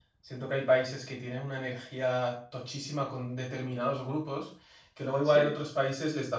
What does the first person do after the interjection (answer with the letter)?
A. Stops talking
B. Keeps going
B